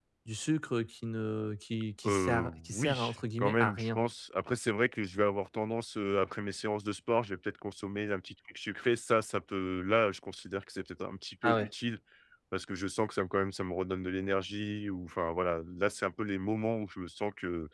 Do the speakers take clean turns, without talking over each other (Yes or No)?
No